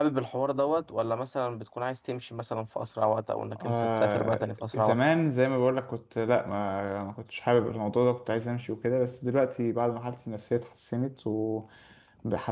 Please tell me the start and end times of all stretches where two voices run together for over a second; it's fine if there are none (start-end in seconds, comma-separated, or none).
3.6-5.0